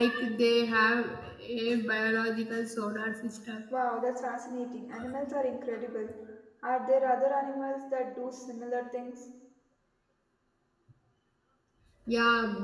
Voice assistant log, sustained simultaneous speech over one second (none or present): none